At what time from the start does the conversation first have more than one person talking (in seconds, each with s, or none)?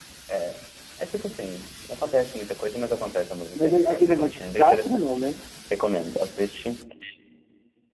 3.5 s